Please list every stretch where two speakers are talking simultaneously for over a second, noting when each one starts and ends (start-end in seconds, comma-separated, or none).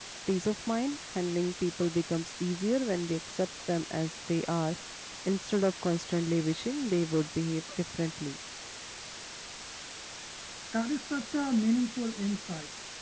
none